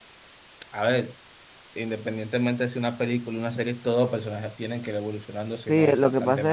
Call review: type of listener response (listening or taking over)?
taking over